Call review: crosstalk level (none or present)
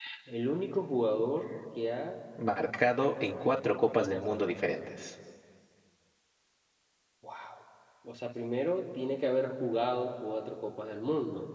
none